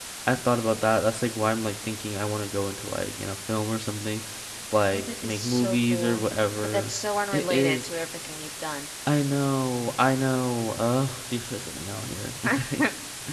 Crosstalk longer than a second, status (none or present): present